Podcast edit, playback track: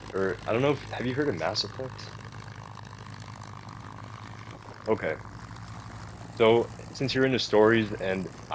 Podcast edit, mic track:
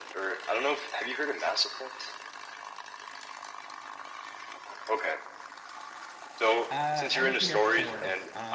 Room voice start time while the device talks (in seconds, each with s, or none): 6.7 s